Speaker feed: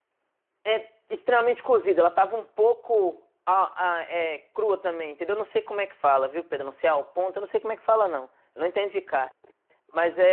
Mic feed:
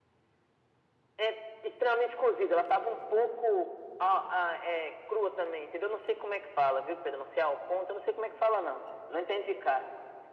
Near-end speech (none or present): none